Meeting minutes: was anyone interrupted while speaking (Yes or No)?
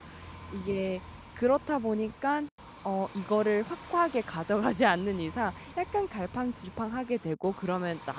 No